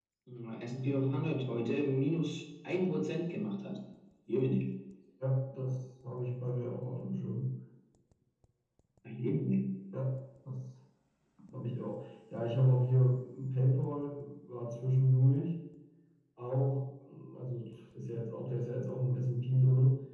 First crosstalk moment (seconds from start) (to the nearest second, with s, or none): none